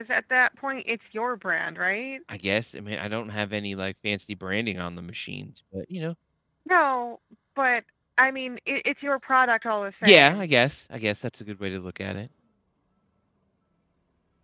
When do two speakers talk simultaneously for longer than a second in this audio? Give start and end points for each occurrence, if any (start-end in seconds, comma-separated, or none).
none